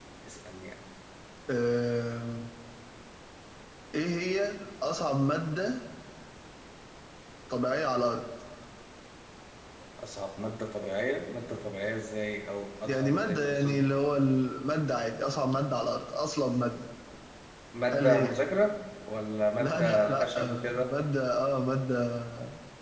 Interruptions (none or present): present